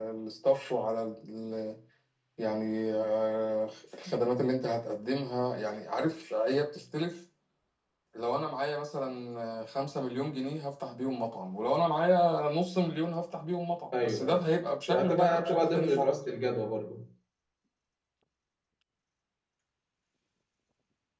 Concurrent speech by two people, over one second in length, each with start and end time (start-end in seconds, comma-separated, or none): 14.9-16.1